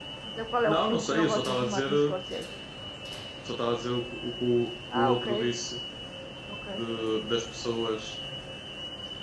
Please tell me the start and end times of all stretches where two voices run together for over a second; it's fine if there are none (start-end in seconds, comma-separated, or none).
0.6-1.9